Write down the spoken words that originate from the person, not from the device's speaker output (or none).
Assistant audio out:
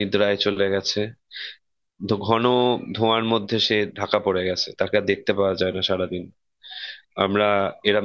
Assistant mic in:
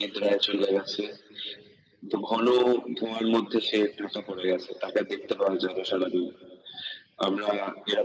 none